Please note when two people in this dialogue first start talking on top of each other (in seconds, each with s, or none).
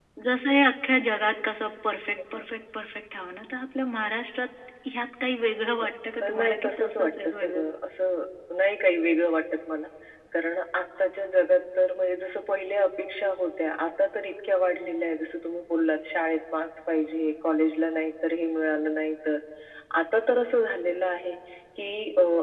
6.2 s